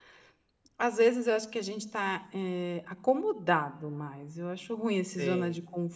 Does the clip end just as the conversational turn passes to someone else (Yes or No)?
No